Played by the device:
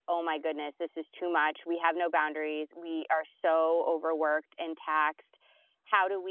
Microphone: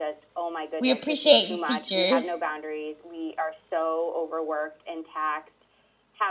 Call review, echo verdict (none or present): present